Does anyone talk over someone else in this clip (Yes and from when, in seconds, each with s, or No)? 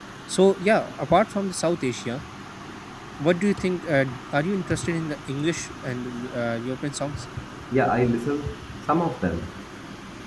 No